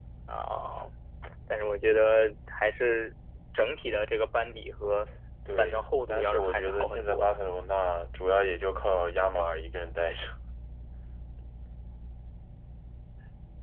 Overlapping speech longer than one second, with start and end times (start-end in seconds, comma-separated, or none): 5.6-7.3